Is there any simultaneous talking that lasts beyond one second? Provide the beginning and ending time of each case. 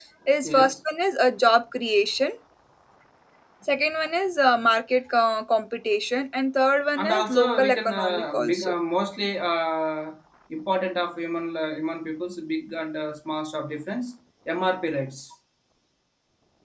7.0-8.7

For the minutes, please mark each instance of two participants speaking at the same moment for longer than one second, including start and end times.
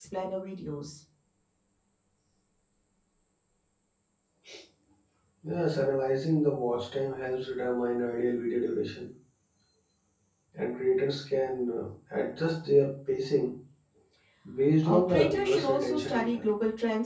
14.8-16.4

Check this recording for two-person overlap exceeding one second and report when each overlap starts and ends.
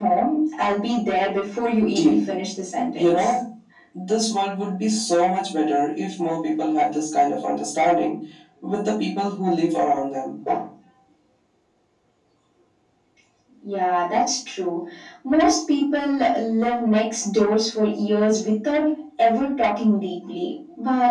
none

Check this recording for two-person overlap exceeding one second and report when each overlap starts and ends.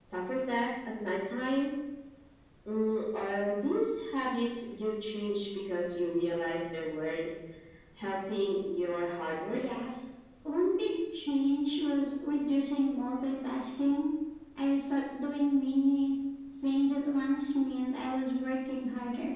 none

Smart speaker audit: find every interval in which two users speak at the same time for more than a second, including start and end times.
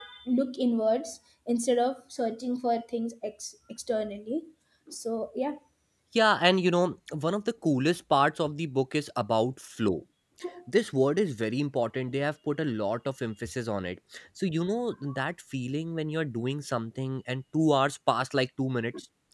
none

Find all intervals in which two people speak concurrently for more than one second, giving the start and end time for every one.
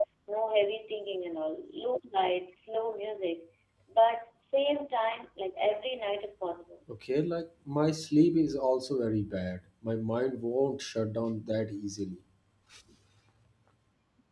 none

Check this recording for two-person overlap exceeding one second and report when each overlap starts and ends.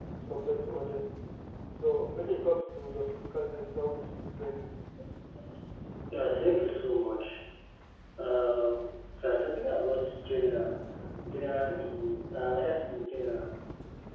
none

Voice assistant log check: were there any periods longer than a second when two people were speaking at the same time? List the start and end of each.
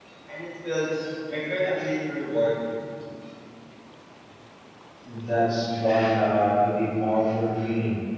none

